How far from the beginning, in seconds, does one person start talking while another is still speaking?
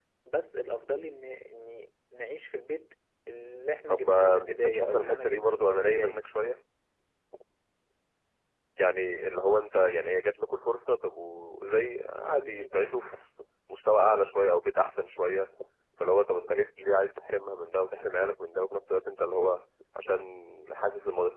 3.9 s

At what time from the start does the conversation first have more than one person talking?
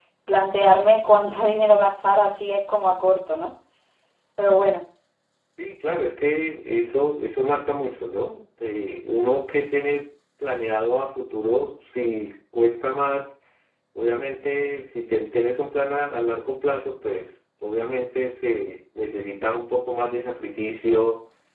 none

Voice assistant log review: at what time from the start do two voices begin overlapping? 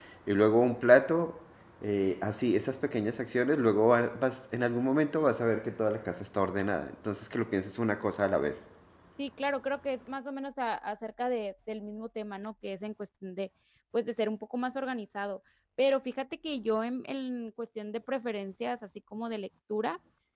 none

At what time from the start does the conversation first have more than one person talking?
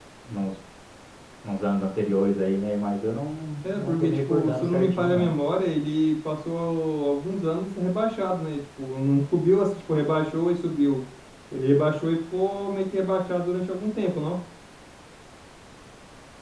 3.6 s

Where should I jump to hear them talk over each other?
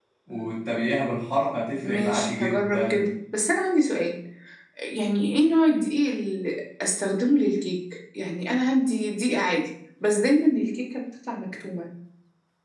1.8 s

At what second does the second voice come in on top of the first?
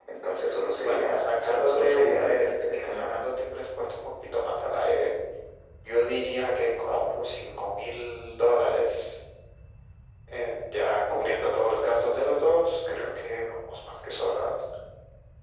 0.8 s

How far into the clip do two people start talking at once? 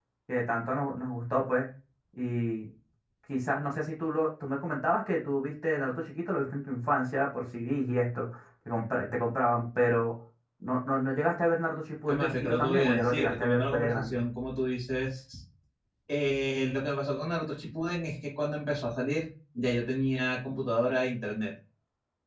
12.1 s

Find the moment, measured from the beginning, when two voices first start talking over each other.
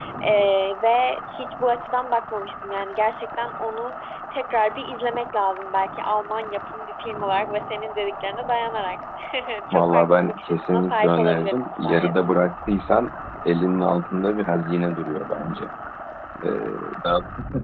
9.7 s

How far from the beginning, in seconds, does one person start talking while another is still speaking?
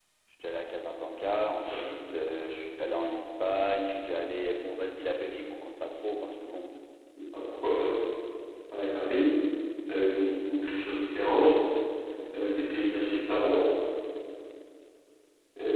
none

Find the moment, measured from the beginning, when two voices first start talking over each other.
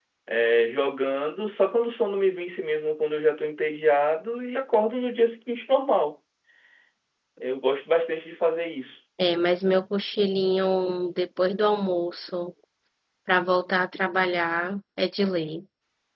none

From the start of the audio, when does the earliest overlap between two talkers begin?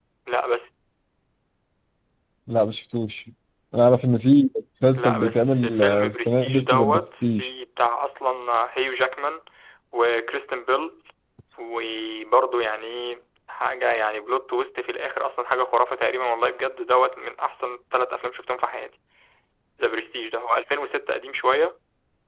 5.0 s

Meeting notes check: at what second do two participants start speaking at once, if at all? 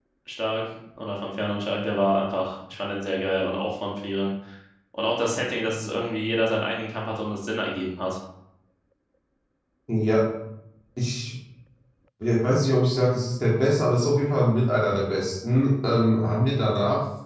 none

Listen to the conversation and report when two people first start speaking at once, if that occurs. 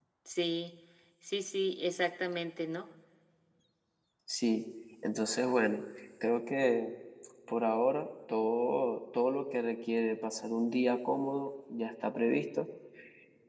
none

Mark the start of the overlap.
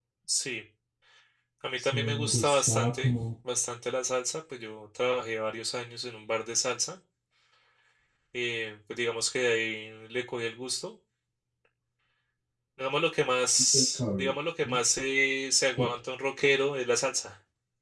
1.8 s

